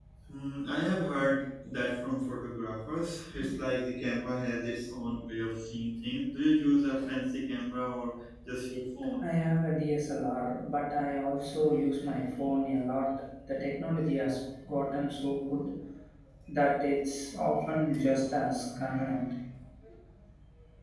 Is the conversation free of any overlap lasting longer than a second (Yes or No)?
Yes